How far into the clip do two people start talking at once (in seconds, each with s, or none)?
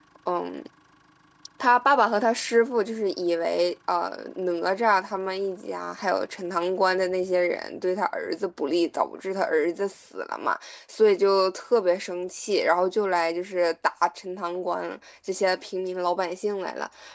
none